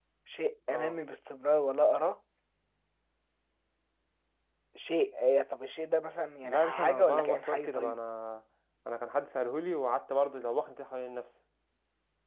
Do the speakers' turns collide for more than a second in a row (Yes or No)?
Yes